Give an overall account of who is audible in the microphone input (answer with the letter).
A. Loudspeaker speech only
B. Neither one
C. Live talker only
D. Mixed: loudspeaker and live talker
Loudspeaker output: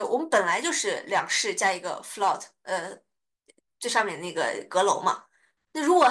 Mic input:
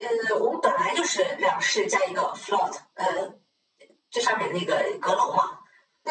A